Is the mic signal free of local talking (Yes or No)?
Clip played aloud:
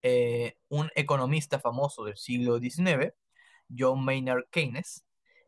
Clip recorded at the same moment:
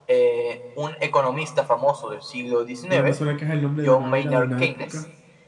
No